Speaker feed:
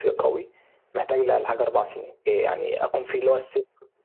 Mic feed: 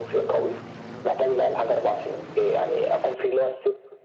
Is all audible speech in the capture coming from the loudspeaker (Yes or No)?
Yes